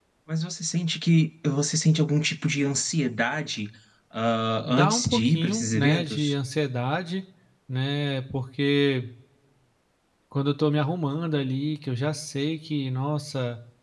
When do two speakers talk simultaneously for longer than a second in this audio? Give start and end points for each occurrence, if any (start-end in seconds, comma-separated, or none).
4.7-6.2